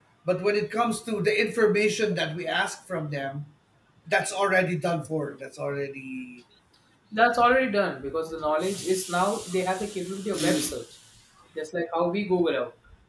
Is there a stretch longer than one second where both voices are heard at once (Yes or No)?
No